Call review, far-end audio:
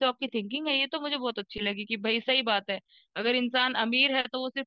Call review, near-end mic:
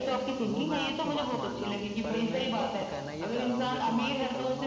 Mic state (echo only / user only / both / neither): both